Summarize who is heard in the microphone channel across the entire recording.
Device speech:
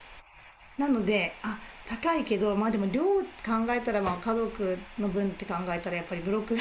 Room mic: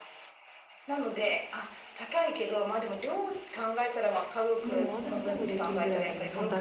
both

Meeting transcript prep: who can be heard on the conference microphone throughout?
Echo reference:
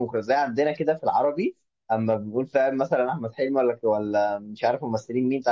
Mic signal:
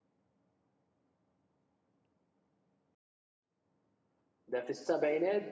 user only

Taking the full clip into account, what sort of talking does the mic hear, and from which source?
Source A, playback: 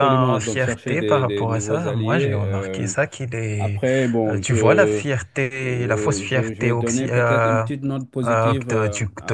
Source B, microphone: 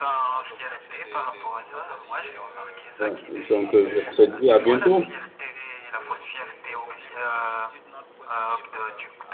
both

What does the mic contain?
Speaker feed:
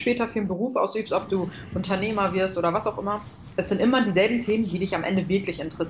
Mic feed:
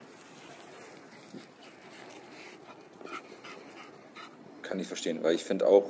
user only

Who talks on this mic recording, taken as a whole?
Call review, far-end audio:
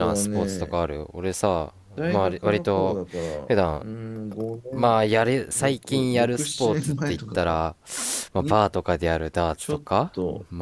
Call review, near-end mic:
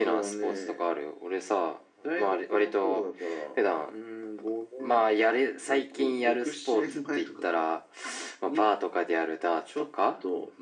echo only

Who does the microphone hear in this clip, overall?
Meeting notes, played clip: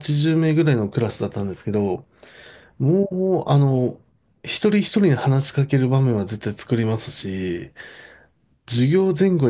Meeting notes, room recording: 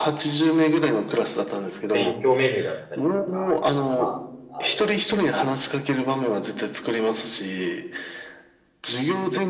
both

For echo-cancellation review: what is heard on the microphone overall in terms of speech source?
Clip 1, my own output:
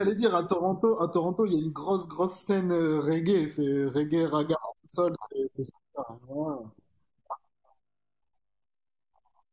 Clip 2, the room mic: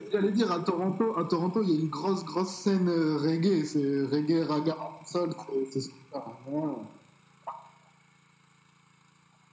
echo only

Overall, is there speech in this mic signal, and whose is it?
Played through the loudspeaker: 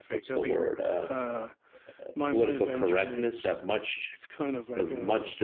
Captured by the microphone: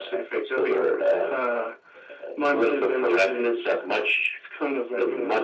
echo only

